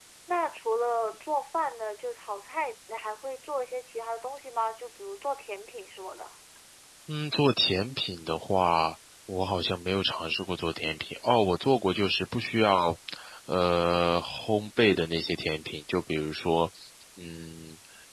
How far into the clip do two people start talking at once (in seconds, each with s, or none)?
none